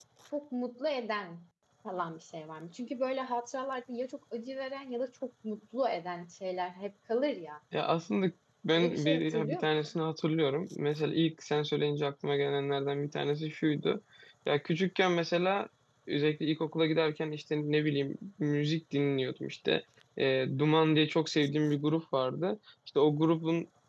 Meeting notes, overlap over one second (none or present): present